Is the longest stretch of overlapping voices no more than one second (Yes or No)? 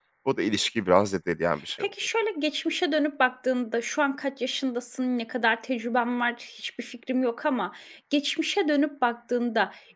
Yes